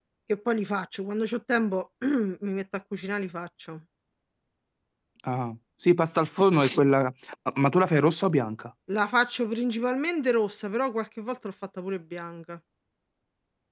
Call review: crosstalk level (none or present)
none